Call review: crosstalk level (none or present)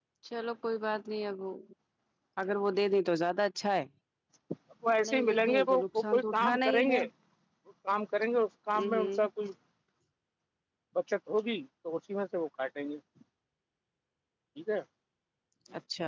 present